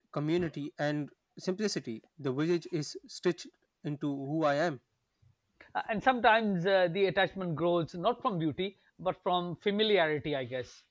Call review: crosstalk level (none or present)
none